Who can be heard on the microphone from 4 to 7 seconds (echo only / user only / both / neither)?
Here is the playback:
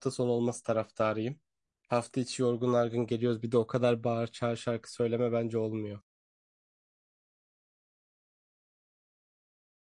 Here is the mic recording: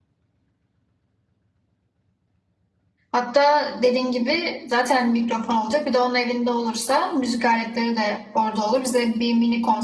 user only